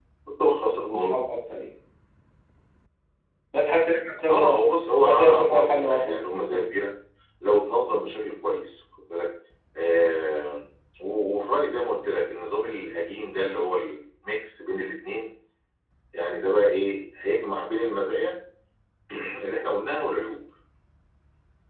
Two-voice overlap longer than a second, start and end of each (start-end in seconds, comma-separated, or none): 5.0-6.3